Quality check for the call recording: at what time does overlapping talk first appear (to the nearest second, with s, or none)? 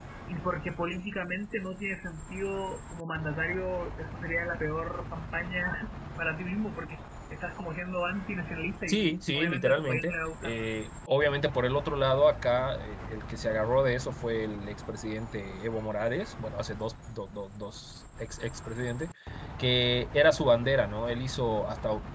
9 s